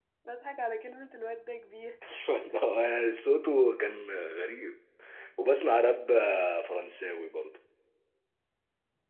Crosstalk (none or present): none